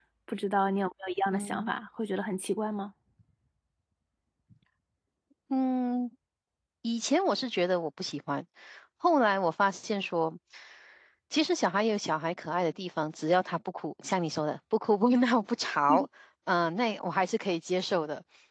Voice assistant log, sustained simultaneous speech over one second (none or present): none